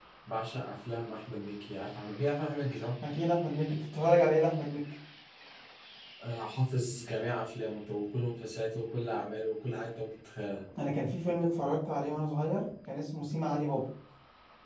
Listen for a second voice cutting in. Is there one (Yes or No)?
No